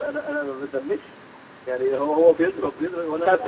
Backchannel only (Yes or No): No